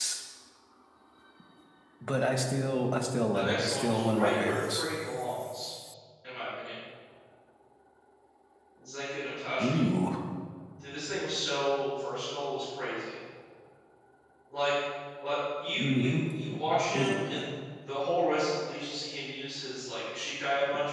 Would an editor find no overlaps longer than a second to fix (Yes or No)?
No